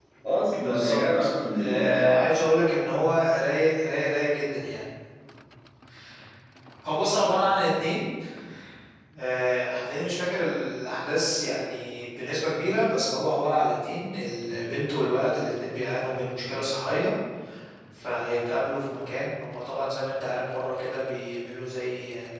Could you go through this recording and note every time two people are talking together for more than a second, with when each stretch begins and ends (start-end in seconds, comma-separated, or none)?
0.5-2.1